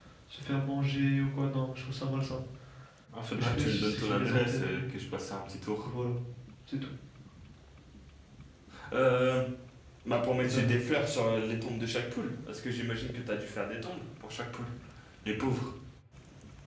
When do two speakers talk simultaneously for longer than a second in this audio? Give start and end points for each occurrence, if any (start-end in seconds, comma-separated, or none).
3.4-4.8